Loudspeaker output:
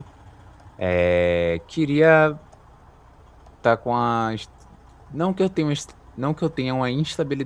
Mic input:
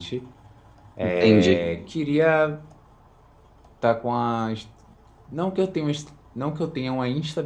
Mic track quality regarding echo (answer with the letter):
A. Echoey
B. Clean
A